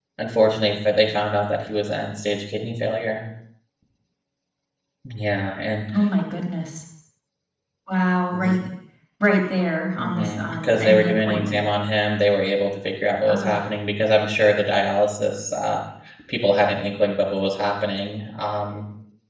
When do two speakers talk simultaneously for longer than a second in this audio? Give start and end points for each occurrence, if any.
10.1-11.6

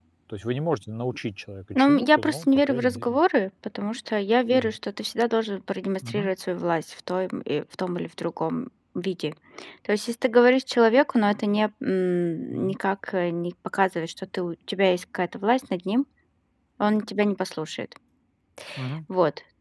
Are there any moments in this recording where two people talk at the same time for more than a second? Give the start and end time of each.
1.8-3.2

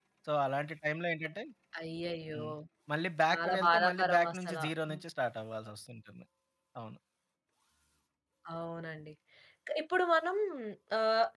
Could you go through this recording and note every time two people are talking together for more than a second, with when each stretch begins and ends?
3.2-4.6

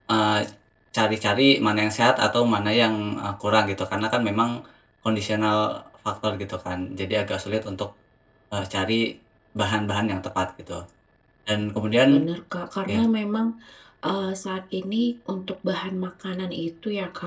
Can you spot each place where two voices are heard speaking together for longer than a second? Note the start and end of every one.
none

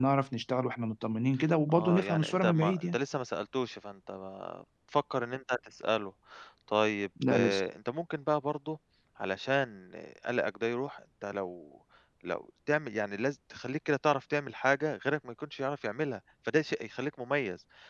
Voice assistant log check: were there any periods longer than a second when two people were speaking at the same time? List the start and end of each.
1.7-3.0

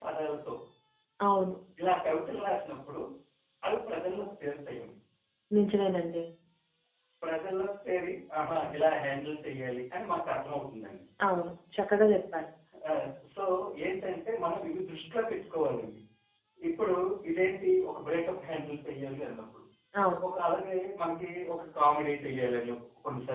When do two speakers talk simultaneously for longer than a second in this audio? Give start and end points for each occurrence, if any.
none

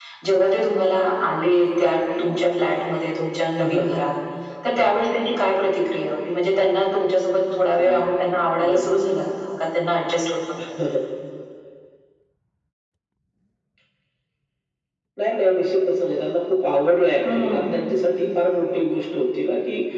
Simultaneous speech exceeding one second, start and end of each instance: none

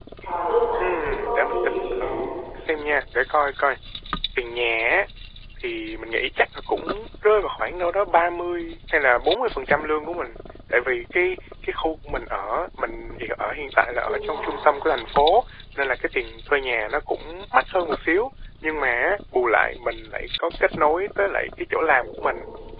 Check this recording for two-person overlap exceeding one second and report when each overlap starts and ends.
0.8-2.1

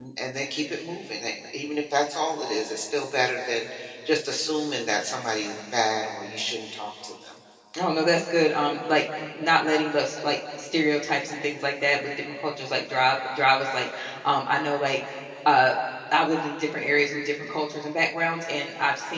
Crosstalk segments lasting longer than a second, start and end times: none

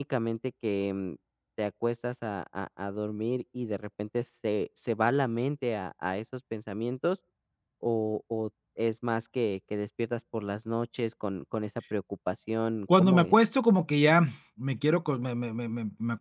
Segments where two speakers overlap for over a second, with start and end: none

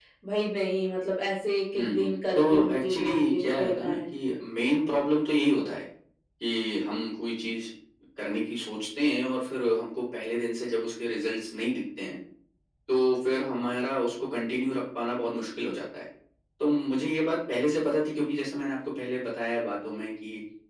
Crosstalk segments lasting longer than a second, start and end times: 1.8-4.0

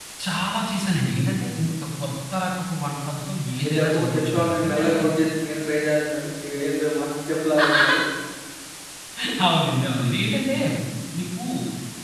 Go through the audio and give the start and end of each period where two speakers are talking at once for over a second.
3.6-5.0

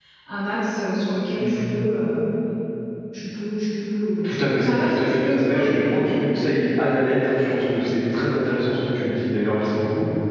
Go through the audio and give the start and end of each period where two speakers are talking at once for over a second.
4.2-6.2

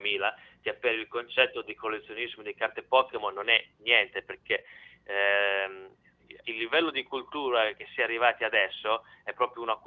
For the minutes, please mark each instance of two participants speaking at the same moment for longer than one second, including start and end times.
none

